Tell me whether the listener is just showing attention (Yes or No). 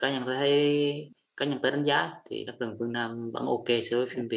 No